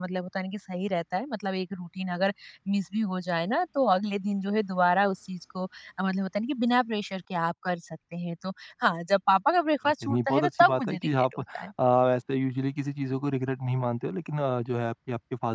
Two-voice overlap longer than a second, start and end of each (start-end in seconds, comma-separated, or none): 9.9-11.7